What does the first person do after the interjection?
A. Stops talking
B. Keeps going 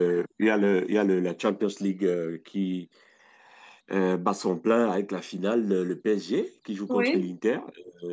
B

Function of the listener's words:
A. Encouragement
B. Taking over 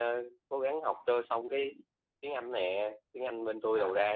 A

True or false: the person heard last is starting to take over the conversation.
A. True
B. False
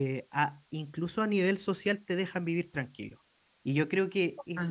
B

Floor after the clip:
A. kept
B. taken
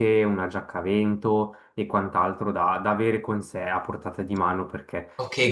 B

